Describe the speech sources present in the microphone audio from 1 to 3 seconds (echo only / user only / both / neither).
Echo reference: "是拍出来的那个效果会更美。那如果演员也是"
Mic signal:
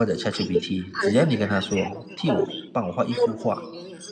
both